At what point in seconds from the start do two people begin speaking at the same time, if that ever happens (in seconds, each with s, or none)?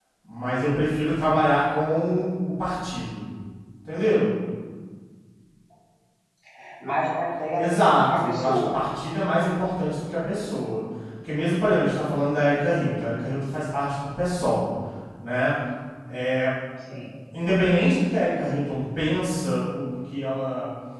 7.5 s